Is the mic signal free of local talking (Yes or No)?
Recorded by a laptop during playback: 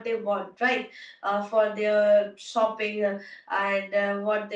Yes